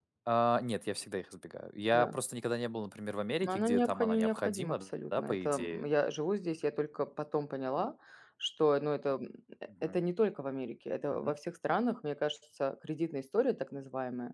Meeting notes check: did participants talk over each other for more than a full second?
Yes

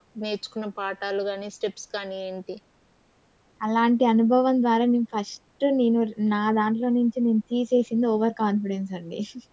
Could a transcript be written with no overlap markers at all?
Yes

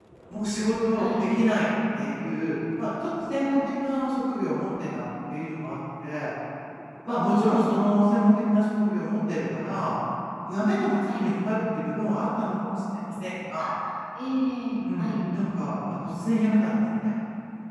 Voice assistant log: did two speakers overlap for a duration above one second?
No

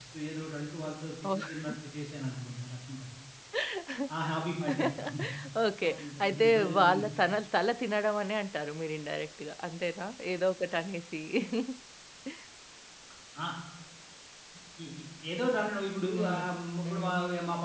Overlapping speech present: Yes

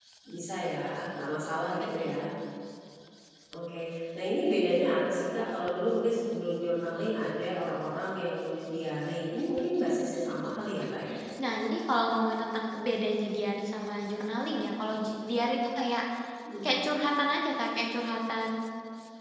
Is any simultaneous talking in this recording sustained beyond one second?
No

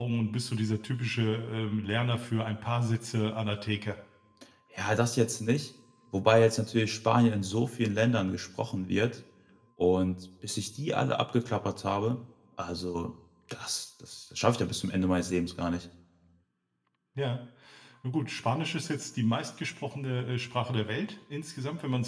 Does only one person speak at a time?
Yes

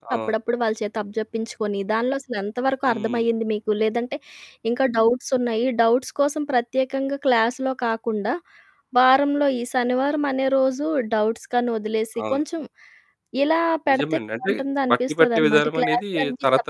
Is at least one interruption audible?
Yes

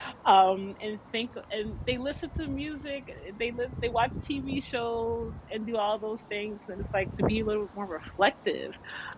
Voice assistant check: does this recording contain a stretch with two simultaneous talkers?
No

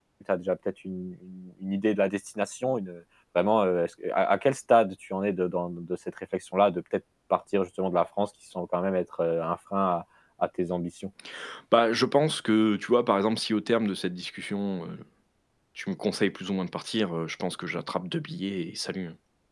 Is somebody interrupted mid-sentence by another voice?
No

